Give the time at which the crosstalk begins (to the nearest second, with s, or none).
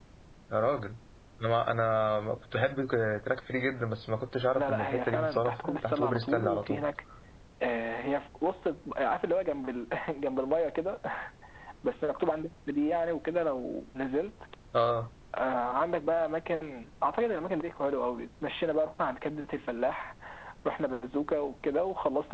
5 s